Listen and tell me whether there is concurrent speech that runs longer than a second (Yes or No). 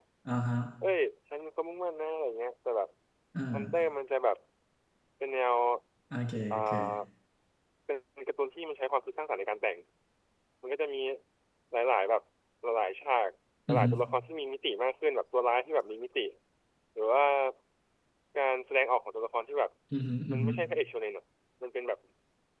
No